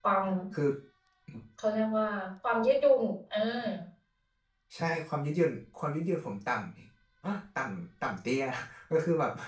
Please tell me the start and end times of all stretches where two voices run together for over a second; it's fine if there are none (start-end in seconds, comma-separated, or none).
none